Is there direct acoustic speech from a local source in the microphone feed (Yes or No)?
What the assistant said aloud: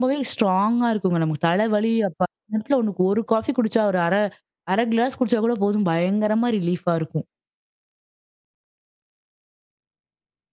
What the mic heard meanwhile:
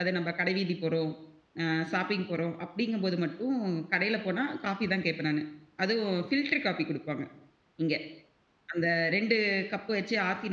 Yes